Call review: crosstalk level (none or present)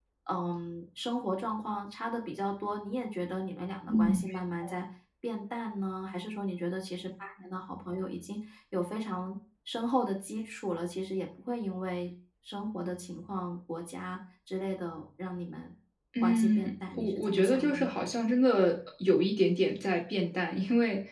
present